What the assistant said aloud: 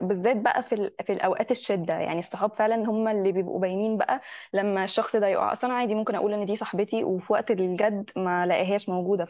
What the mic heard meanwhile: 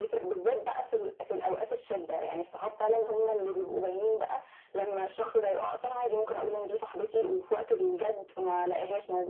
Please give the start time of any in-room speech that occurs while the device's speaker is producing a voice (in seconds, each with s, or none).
none